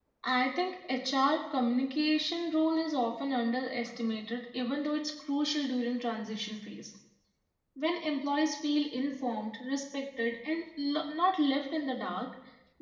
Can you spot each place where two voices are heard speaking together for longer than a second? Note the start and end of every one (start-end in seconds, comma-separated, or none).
none